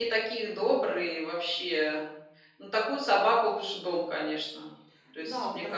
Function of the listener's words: taking over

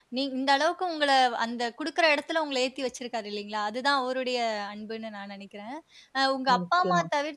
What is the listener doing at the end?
listening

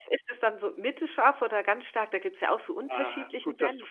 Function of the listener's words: taking over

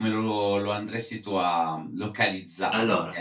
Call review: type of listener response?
listening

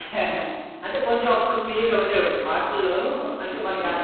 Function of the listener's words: listening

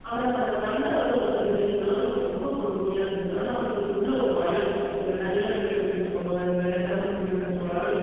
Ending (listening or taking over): listening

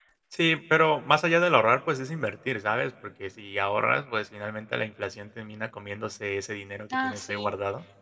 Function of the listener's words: taking over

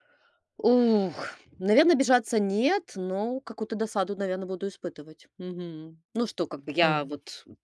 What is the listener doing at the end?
listening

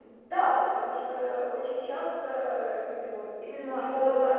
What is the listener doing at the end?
taking over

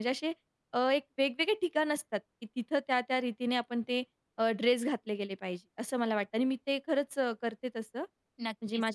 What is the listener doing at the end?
taking over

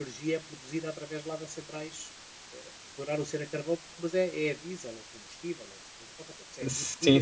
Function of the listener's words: taking over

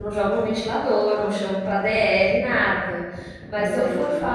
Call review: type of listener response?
listening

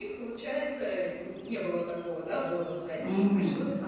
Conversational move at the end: listening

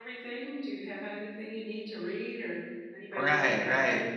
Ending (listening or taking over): taking over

